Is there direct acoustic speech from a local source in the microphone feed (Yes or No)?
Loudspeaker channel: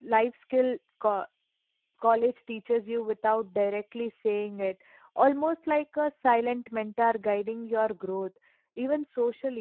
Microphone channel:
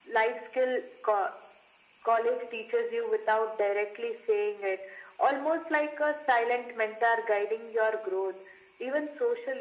No